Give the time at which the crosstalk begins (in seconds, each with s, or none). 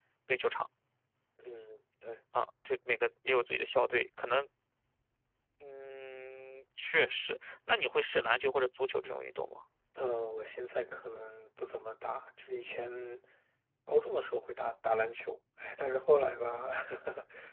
none